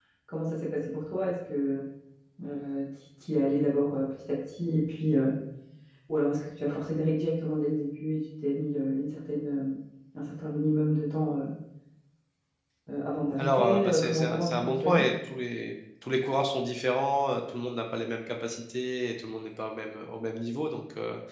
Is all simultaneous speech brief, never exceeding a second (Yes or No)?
No